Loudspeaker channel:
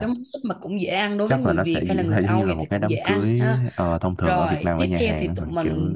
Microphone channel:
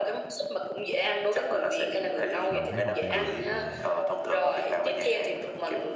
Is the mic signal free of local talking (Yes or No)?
No